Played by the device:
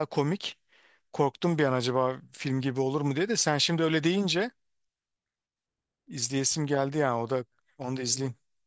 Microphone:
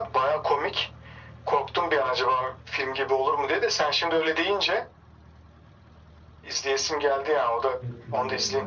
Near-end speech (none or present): present